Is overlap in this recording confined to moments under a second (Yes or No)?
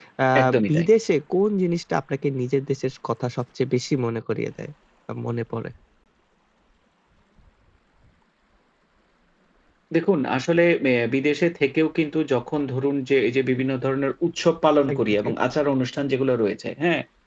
Yes